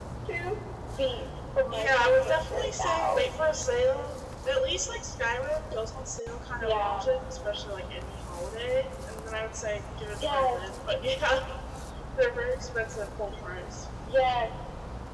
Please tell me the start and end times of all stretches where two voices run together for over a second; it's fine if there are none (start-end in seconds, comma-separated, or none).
1.7-3.2